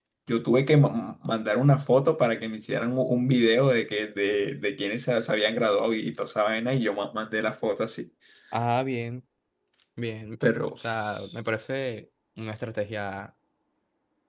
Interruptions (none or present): none